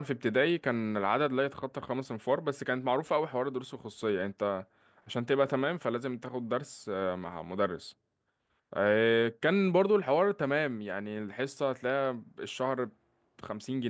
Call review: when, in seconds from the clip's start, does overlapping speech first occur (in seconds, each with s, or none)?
none